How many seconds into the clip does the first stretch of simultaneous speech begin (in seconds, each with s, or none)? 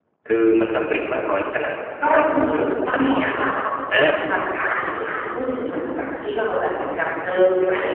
2.0 s